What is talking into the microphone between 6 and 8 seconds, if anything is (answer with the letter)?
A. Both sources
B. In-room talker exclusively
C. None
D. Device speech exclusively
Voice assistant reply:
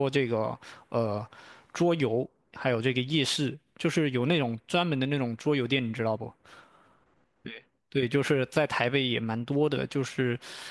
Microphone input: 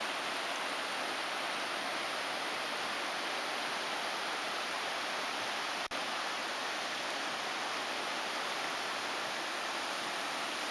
C